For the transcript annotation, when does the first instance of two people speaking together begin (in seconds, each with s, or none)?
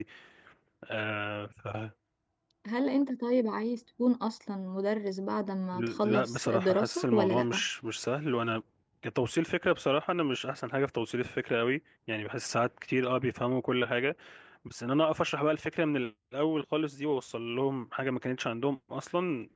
6.0 s